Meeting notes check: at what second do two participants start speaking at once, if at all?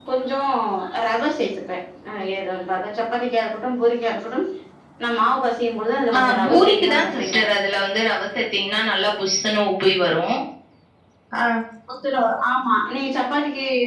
6 s

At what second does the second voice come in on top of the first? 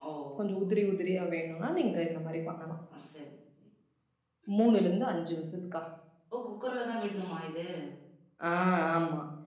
none

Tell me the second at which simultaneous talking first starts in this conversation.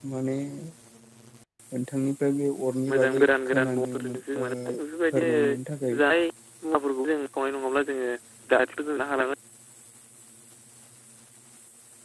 3 s

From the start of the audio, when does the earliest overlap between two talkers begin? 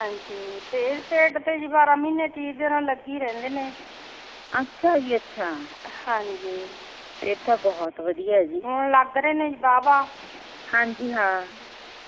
none

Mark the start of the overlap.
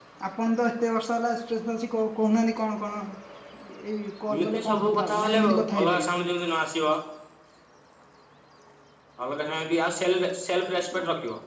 4 s

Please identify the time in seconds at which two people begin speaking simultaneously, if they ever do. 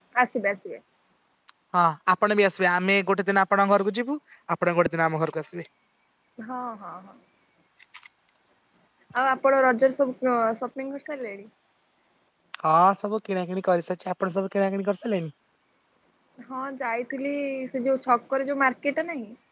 none

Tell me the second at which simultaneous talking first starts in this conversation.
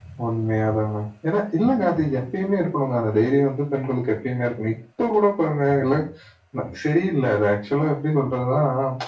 none

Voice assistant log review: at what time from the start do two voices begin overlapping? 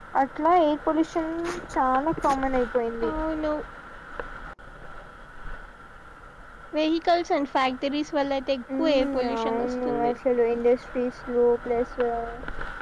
9 s

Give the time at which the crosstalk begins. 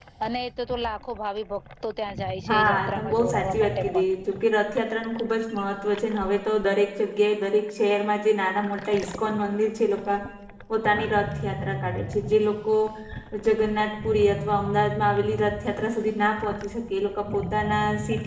2 s

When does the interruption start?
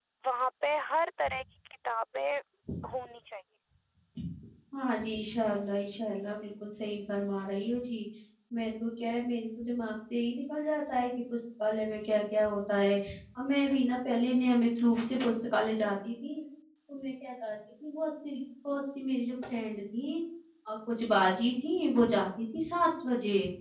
none

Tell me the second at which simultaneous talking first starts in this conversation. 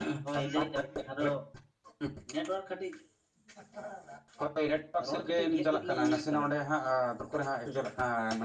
5 s

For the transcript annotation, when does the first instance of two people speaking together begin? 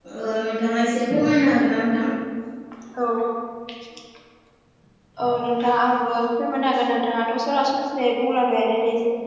none

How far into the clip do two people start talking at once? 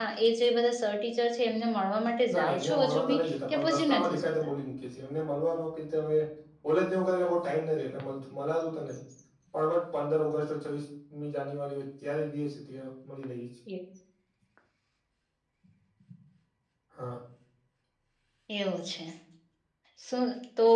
2 s

